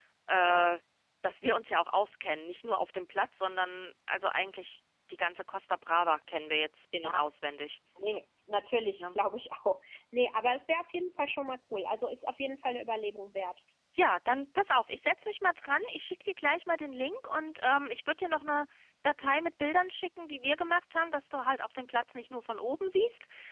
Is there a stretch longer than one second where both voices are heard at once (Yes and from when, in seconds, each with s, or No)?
No